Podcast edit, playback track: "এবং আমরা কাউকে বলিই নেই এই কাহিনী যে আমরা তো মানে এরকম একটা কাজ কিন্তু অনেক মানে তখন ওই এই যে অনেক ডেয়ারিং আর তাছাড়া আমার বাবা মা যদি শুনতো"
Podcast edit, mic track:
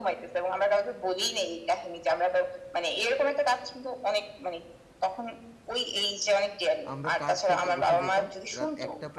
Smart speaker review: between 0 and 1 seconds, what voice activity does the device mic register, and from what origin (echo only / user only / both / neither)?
echo only